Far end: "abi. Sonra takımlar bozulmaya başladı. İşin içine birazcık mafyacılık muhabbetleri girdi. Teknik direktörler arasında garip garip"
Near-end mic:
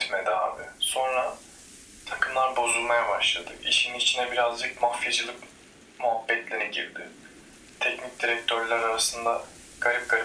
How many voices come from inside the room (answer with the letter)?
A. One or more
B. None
B